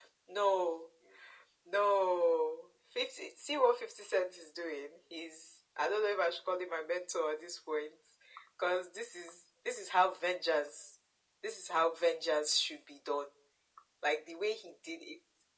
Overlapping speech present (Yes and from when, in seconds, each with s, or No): No